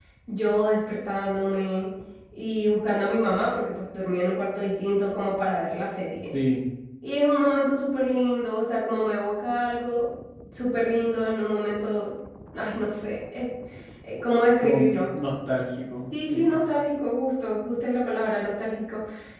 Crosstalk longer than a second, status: none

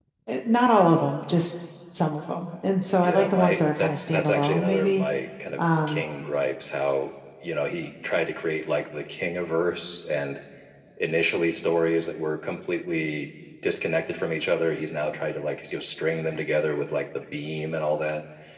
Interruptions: present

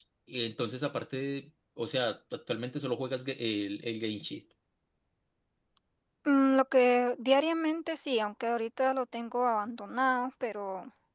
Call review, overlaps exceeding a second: none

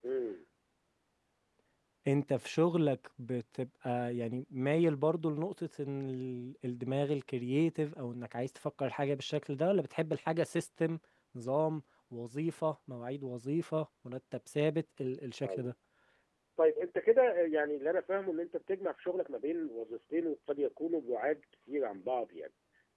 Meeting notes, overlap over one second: none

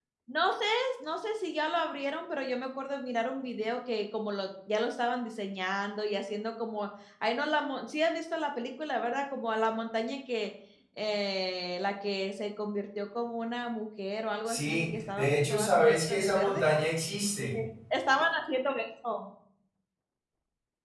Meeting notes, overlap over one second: present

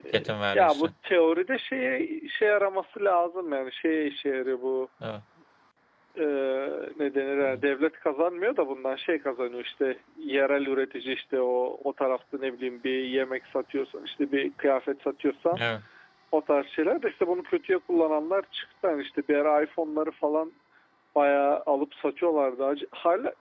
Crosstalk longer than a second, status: none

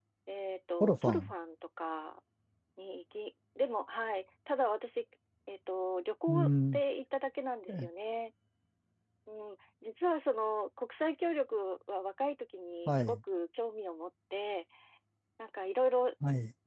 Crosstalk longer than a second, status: none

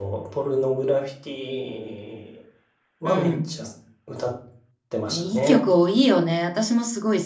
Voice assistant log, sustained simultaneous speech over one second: none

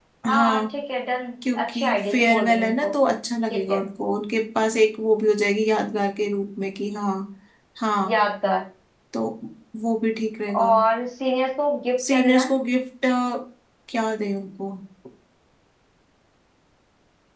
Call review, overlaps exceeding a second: present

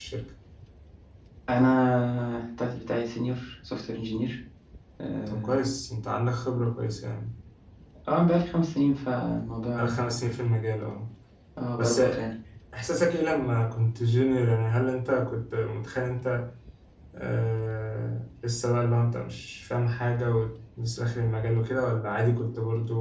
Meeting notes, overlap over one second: none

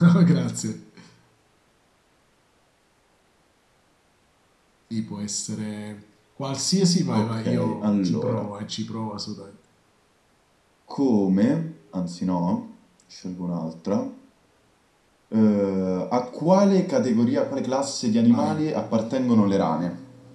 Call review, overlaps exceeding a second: present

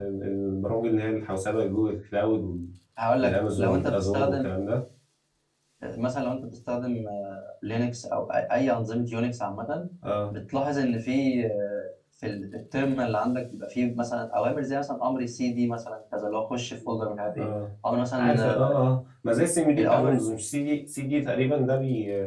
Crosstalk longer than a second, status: present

